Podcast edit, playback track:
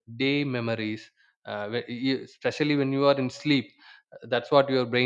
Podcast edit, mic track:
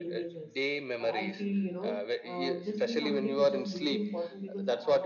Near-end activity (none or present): present